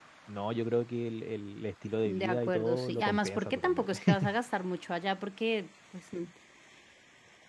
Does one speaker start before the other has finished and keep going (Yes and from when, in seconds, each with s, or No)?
Yes, from 2.0 s